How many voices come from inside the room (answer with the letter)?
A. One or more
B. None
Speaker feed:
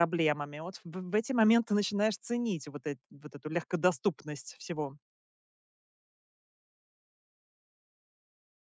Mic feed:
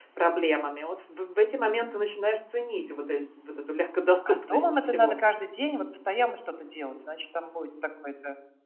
A